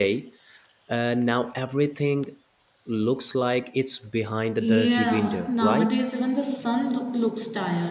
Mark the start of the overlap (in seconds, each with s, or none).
4.6 s